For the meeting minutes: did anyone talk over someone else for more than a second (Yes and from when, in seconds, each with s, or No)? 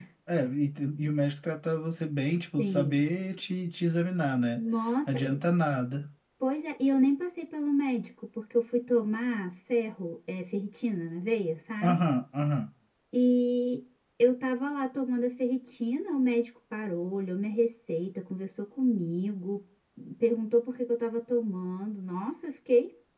No